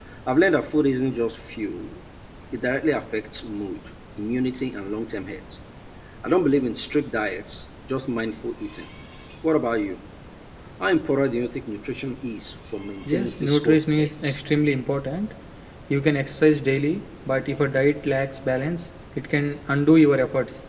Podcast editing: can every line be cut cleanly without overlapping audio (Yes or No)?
No